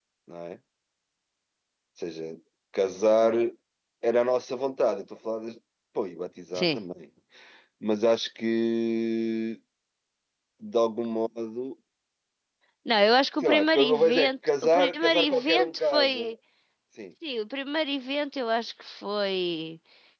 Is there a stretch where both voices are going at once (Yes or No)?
Yes